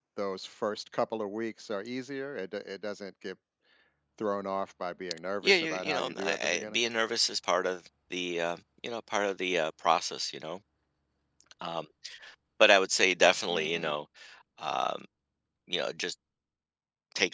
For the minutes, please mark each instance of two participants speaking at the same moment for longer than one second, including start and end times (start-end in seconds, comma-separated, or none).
5.4-6.8